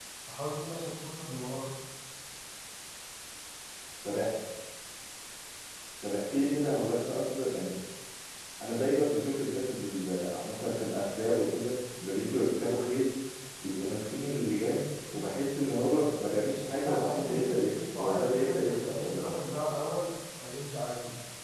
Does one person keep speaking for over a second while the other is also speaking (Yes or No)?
Yes